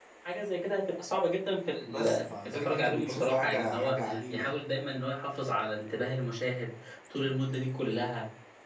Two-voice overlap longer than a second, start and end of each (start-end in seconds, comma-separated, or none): 1.9-4.5